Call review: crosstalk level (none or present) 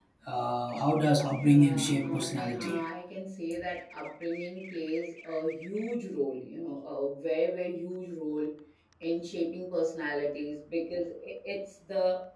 present